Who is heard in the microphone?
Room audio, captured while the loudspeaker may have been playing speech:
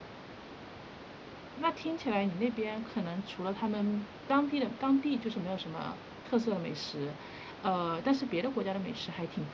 user only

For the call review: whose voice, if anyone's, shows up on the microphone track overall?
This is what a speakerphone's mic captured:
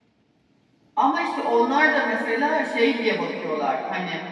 user only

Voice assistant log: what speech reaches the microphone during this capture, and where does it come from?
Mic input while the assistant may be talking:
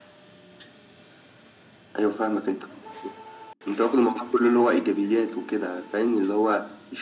echo only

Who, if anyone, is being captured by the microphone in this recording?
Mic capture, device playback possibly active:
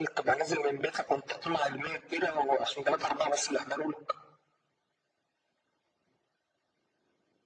echo only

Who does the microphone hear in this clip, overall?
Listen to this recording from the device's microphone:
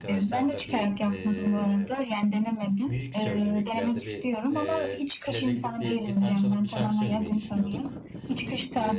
both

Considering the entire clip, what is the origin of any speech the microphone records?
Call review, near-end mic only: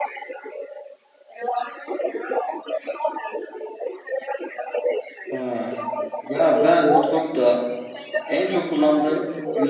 both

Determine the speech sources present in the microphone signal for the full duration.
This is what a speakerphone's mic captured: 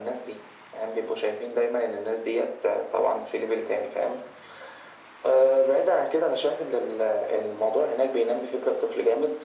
echo only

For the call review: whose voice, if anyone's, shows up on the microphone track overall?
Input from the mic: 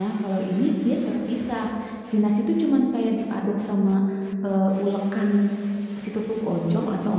user only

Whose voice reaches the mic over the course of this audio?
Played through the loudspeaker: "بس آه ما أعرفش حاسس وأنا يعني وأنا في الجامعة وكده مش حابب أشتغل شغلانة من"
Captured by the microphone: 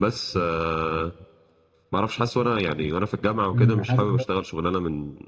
both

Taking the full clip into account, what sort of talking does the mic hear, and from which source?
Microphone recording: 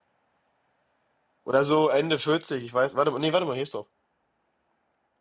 user only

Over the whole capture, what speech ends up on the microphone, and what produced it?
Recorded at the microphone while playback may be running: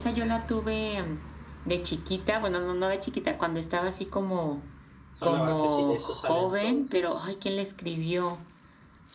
both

